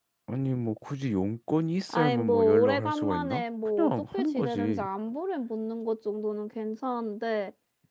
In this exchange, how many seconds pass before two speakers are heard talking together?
1.9 s

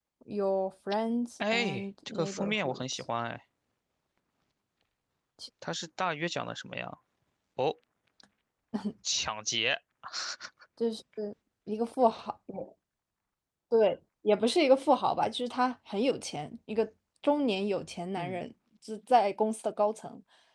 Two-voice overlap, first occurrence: 1.4 s

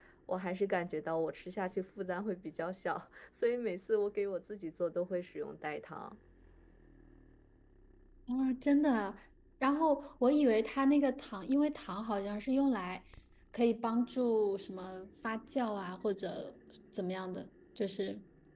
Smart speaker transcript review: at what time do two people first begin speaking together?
none

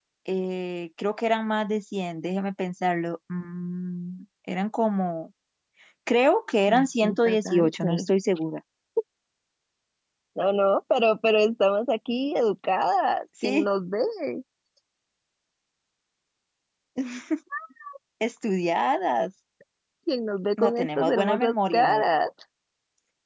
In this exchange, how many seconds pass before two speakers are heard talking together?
6.7 s

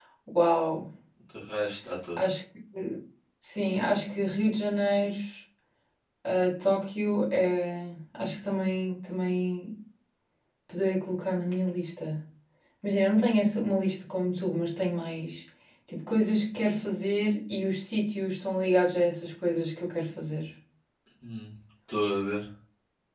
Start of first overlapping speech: none

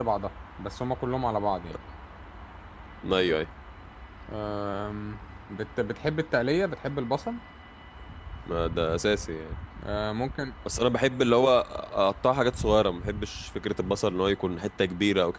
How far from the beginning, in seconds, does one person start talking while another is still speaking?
none

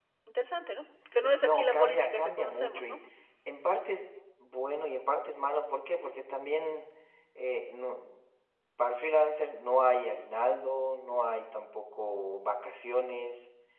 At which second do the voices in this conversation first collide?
1.4 s

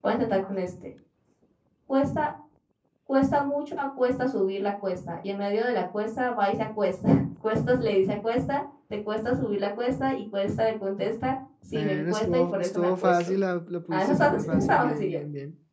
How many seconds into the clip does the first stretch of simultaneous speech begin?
11.7 s

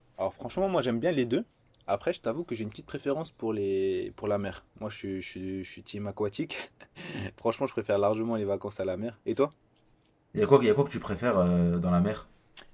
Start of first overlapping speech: none

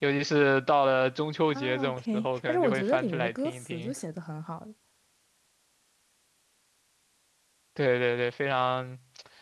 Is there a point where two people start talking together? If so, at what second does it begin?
1.5 s

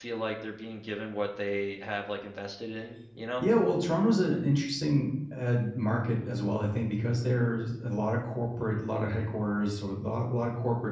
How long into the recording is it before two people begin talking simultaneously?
none

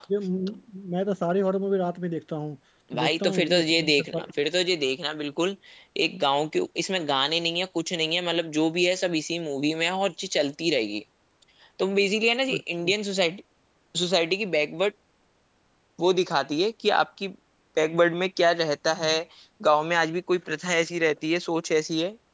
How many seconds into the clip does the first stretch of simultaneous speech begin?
3.0 s

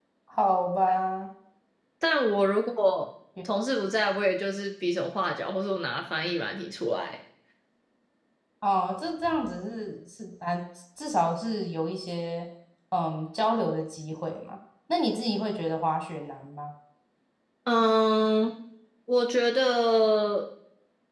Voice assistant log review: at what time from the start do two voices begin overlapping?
none

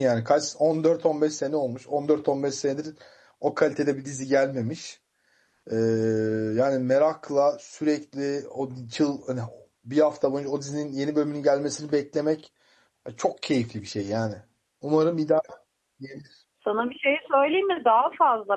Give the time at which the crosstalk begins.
none

